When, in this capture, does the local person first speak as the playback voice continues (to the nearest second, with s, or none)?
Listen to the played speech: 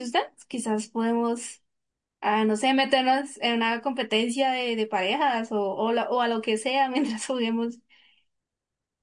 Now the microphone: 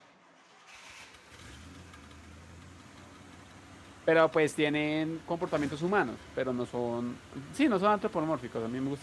4 s